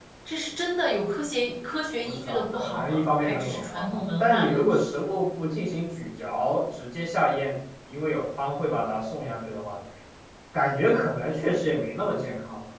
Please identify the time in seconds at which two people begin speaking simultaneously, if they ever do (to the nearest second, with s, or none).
2 s